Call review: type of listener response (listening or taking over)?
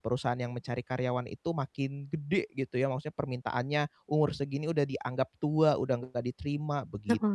taking over